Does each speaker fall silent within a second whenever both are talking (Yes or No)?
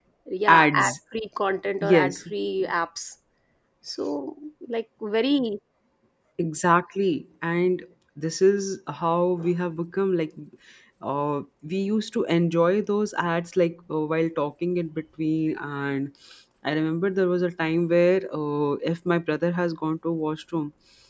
Yes